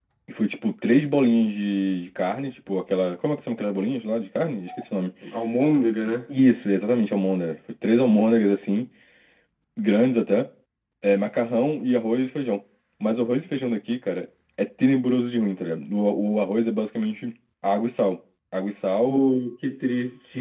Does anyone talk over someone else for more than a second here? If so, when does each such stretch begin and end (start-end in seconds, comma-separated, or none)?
none